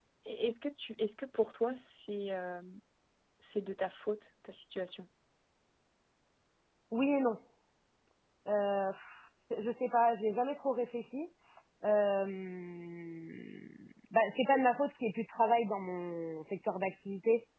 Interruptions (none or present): none